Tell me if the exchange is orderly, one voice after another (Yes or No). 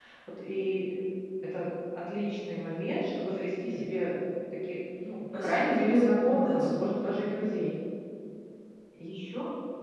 No